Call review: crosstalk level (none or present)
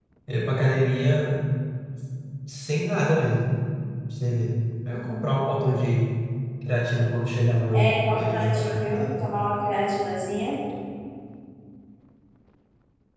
present